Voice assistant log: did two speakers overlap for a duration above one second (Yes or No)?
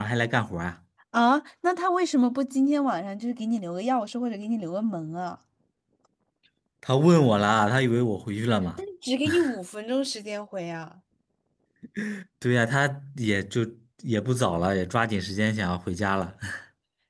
No